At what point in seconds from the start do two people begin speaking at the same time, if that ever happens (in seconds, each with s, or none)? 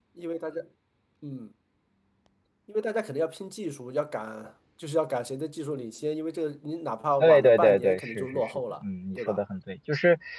7.2 s